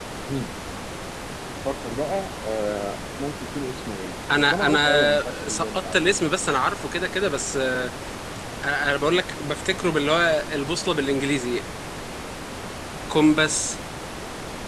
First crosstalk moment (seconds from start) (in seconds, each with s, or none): 4.3 s